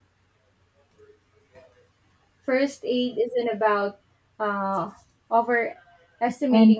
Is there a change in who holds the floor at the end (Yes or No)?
No